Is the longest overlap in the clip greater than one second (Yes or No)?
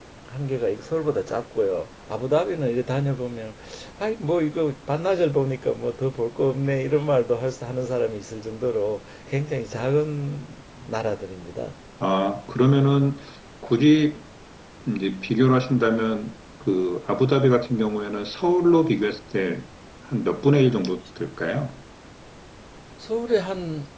No